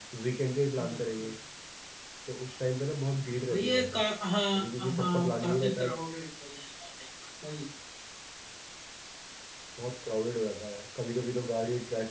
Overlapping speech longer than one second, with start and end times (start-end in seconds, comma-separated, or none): 4.5-5.9